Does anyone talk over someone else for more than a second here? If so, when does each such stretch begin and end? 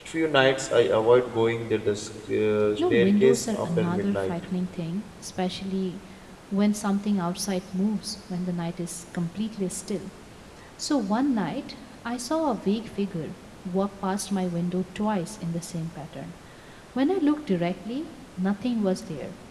2.8-4.3

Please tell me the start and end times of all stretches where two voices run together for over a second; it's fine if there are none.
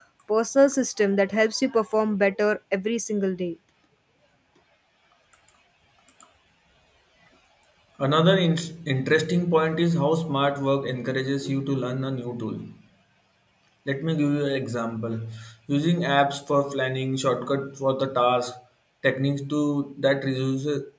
none

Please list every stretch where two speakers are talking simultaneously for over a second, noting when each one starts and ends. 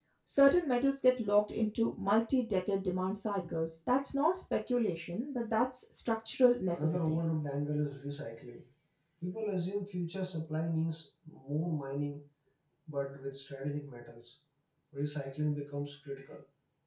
none

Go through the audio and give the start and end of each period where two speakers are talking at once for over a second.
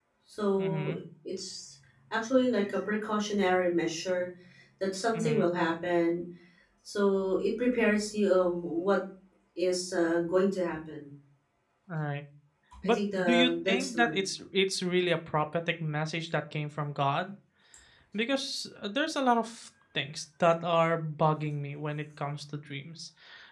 12.8-14.2

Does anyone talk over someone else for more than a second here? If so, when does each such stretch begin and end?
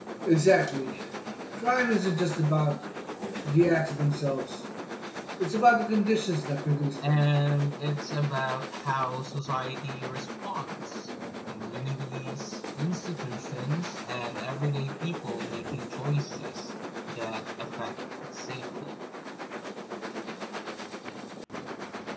none

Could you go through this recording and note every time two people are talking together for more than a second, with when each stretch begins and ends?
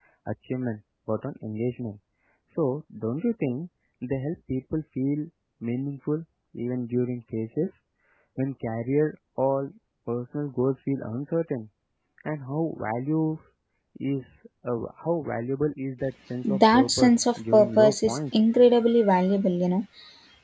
16.4-18.2

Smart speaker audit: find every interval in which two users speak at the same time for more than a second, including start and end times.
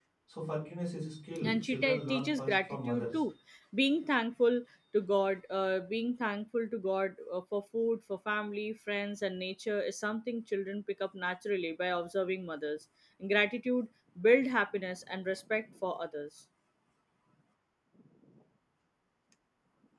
1.4-3.2

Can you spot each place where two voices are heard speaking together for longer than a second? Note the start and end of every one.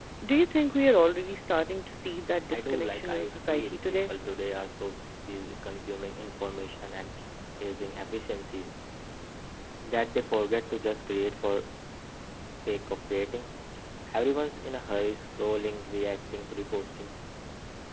2.5-4.1

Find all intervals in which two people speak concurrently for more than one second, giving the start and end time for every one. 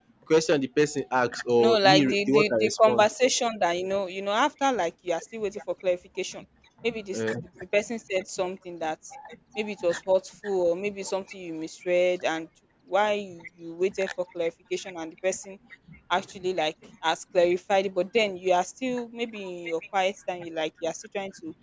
1.6-3.1

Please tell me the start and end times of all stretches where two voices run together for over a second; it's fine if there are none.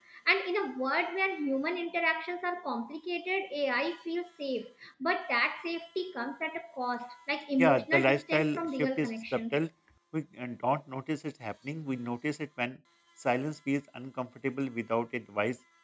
7.6-9.6

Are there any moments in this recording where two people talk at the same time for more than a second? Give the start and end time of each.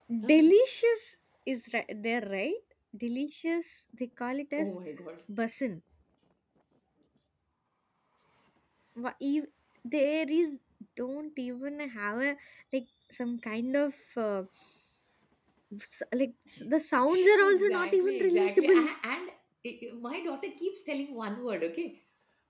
17.4-18.8

